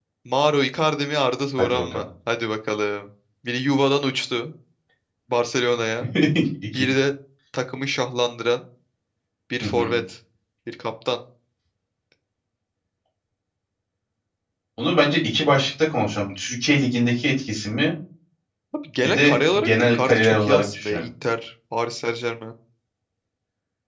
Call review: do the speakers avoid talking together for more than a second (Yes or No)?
No